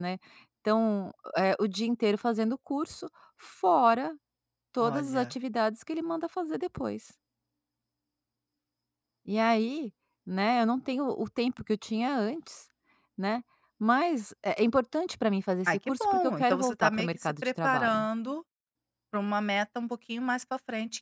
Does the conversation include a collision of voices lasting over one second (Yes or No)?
Yes